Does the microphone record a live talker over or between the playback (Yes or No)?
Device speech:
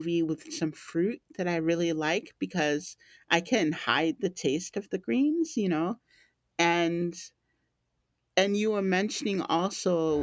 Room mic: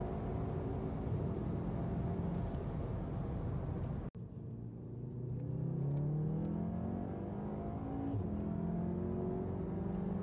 No